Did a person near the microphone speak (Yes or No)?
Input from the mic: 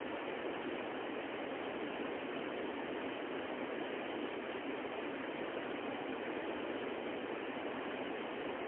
No